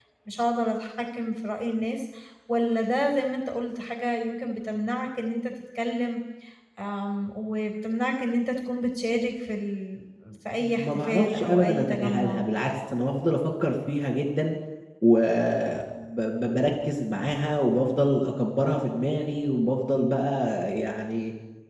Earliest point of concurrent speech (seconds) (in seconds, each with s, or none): 10.6 s